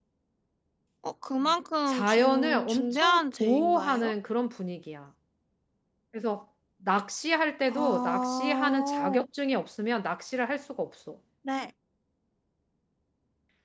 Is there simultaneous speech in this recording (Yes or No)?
Yes